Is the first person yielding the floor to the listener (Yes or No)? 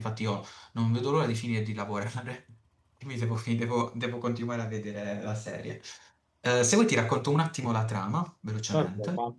Yes